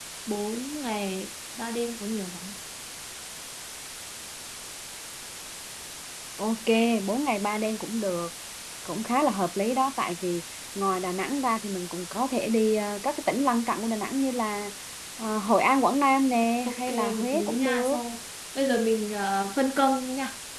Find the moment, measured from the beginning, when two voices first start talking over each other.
16.7 s

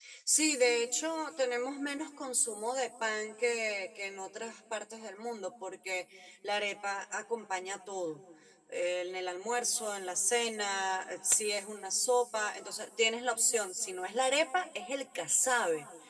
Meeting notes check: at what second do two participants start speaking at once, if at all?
none

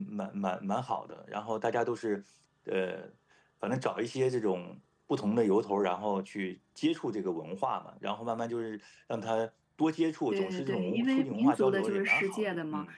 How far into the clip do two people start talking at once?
10.3 s

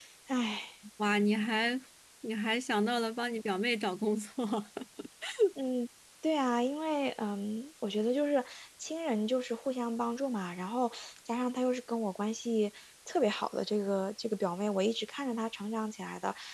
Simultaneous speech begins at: none

